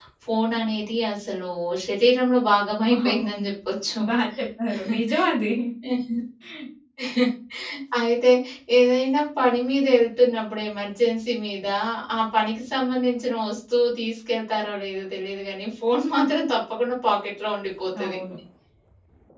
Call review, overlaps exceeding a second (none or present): none